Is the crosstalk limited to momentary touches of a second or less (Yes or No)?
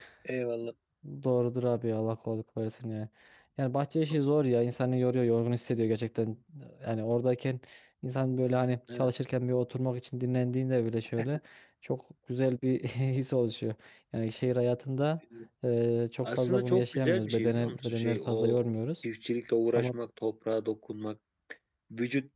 No